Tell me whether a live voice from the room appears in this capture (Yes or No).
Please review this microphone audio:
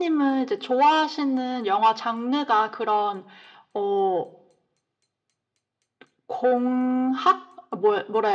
No